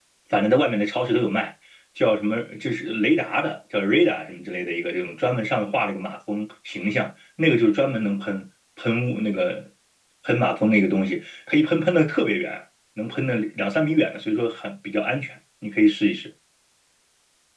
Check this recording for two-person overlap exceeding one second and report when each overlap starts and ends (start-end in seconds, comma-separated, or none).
none